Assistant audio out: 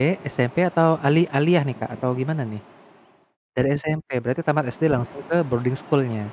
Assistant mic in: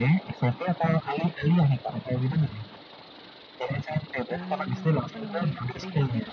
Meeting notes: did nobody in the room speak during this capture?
No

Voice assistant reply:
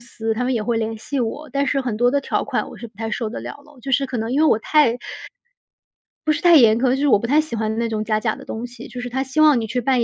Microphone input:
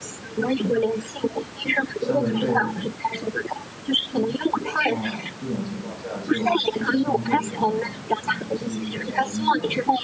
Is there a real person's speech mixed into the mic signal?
Yes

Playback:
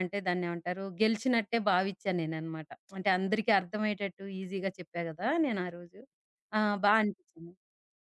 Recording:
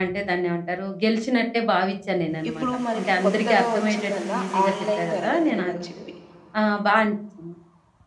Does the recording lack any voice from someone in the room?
No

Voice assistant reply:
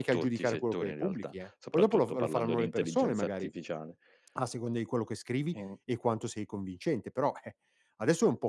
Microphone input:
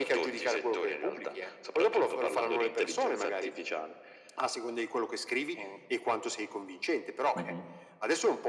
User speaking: Yes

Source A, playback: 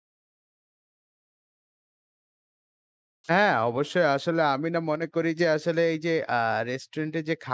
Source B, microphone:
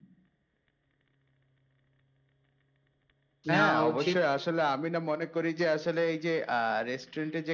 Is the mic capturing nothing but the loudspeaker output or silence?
No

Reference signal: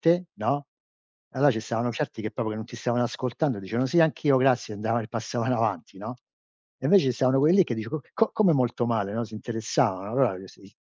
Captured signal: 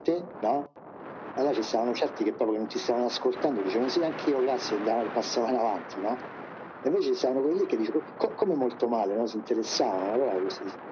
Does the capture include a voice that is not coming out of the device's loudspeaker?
No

